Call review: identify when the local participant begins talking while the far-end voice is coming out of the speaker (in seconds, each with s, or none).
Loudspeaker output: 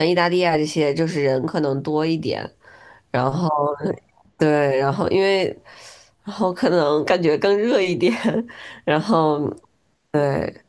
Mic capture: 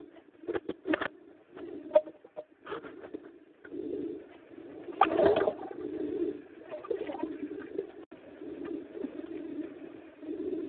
none